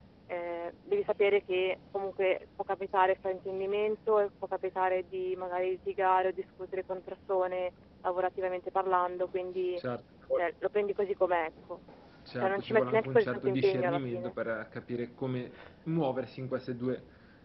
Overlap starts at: 12.4 s

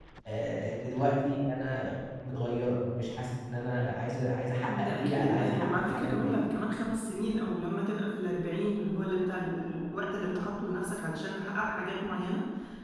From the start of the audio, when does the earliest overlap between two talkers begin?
4.7 s

